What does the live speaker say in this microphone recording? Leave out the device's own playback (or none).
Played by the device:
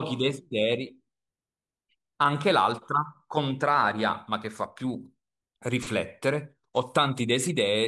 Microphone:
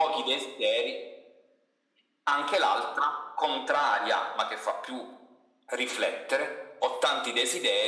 none